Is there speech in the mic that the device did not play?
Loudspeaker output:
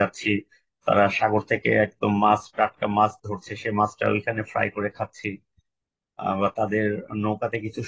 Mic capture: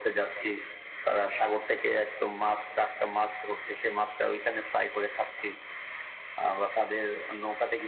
No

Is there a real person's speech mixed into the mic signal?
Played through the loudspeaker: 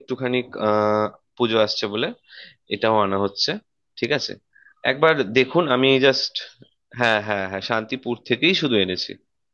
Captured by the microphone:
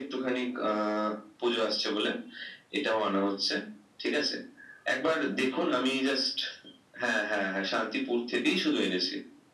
No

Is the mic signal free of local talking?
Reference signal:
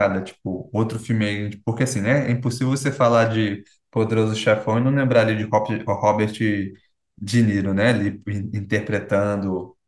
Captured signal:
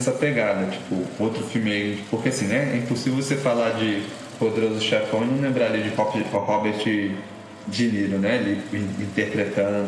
Yes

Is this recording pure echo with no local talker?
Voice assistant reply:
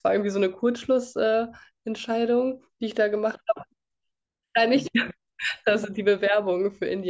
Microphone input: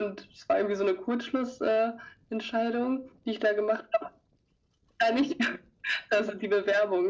Yes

